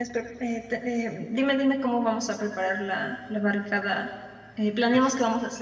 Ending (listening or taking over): listening